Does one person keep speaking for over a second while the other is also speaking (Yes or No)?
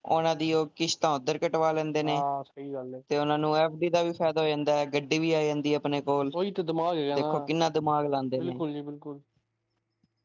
No